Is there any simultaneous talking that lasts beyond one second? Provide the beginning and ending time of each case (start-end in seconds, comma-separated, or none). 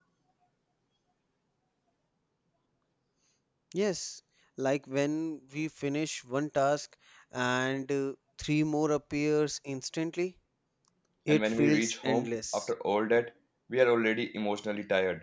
11.3-12.7